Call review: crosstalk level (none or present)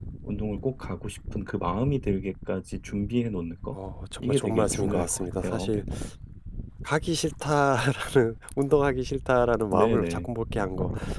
present